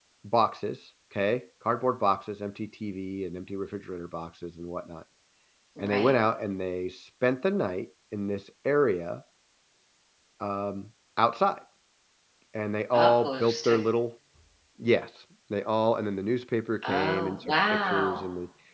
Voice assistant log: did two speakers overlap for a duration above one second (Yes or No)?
Yes